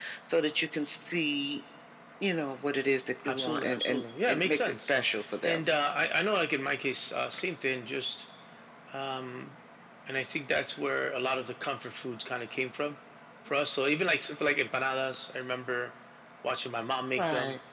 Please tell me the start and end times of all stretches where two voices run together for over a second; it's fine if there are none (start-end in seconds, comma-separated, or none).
3.2-4.9